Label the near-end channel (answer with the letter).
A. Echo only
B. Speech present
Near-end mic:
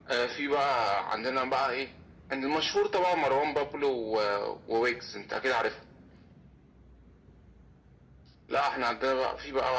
A